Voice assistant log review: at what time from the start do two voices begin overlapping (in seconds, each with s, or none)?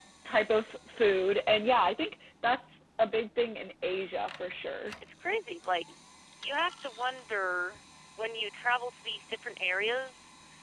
none